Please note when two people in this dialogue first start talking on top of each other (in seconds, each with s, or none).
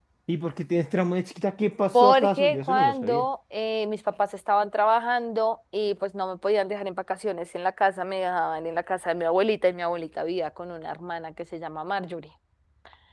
1.9 s